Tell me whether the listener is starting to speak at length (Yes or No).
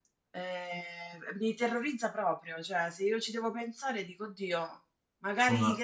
No